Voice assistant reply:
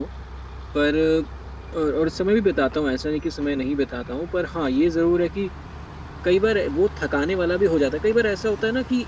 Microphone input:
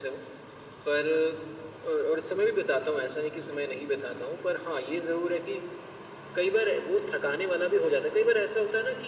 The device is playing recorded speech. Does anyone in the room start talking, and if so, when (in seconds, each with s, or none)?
none